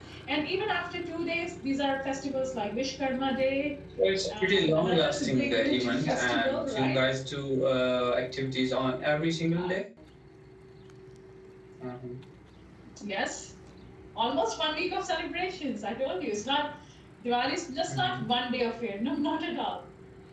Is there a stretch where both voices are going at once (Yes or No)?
Yes